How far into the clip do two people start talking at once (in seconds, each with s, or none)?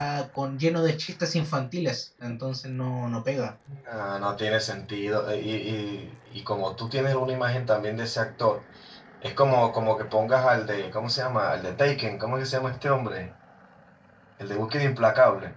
none